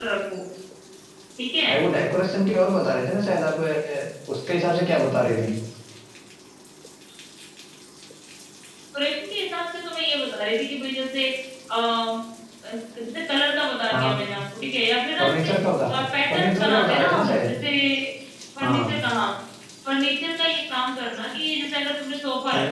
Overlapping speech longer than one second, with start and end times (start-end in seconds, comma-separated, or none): 16.3-17.5